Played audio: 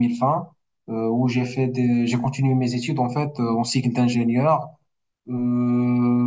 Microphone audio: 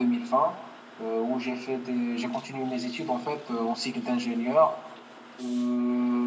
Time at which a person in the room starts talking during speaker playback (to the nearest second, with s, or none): none